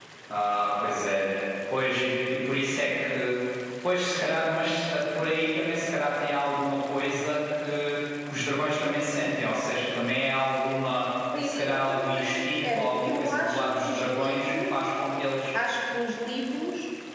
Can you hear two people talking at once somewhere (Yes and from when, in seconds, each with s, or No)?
Yes, from 11.3 s